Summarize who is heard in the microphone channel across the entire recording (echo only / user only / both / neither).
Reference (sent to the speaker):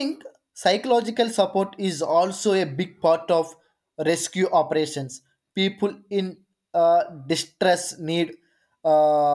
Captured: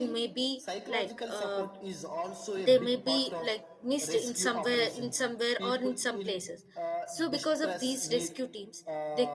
both